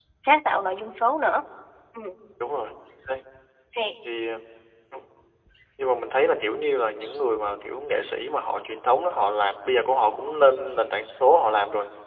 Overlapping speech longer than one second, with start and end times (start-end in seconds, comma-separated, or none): none